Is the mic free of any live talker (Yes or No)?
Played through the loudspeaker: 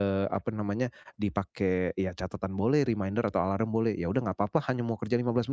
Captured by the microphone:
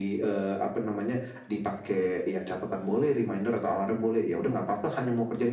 Yes